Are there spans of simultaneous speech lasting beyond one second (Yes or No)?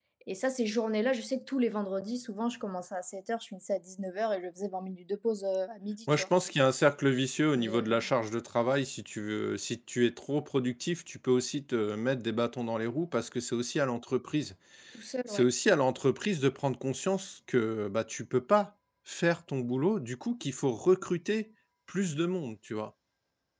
No